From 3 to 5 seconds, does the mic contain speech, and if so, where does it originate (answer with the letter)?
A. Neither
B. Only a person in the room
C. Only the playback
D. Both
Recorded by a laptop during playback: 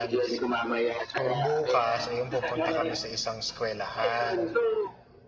D